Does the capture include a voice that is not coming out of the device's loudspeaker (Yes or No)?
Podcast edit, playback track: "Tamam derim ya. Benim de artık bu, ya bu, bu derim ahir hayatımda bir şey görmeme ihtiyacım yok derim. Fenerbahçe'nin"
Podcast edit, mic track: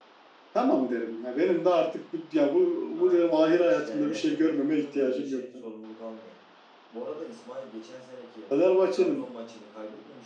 Yes